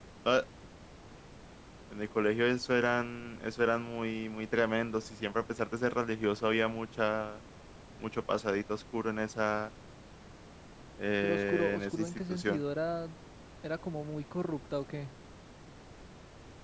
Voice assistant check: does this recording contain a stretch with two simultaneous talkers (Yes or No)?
Yes